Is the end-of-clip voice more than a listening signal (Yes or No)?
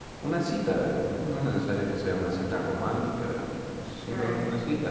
Yes